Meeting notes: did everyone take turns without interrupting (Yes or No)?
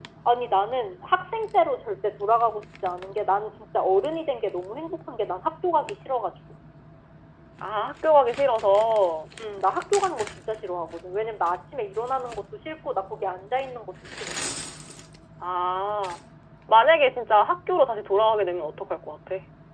Yes